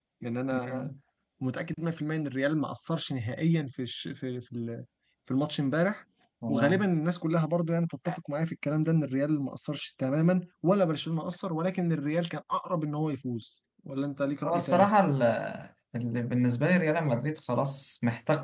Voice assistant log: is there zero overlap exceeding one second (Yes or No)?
Yes